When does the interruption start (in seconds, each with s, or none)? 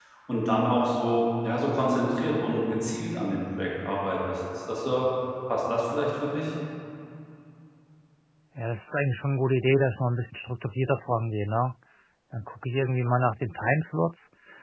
none